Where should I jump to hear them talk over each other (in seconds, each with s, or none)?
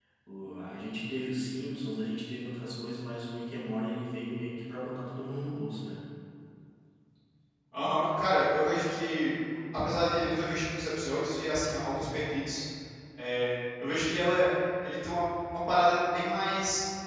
none